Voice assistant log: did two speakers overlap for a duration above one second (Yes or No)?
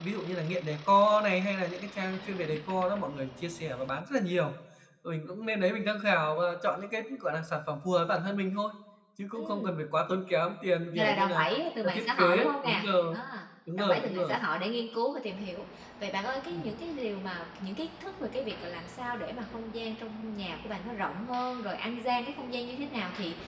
Yes